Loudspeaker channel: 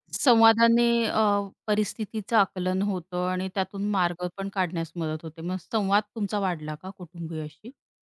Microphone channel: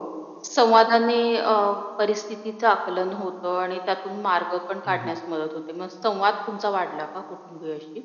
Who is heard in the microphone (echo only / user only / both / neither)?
both